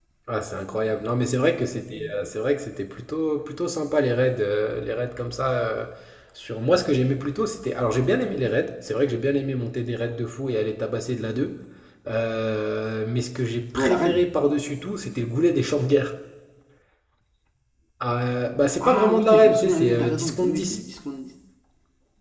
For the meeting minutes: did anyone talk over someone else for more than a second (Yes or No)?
Yes